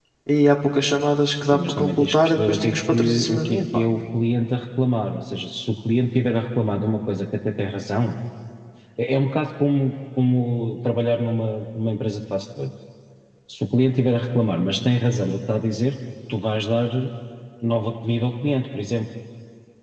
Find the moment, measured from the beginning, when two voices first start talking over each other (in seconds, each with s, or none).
1.4 s